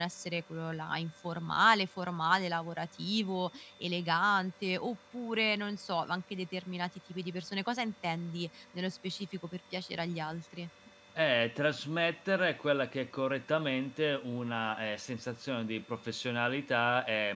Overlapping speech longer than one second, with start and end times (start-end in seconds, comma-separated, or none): none